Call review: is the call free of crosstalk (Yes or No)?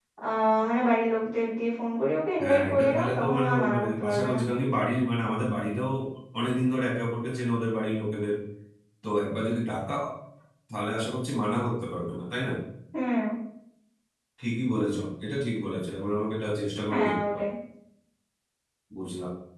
No